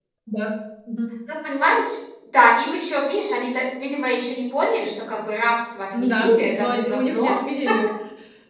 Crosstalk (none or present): present